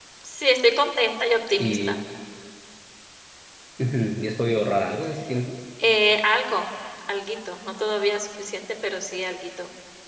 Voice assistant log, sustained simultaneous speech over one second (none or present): none